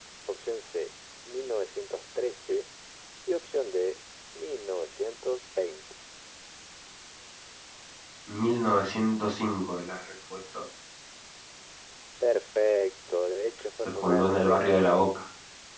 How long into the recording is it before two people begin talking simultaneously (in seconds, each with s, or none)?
13.8 s